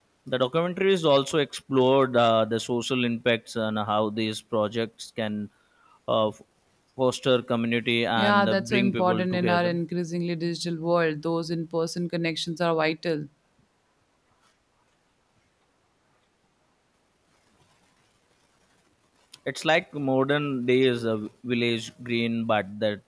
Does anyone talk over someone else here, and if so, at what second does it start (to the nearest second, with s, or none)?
8 s